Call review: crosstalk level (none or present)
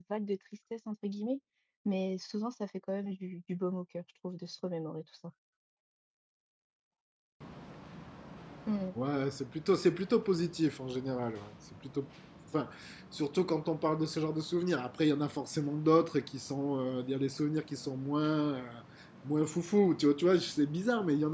none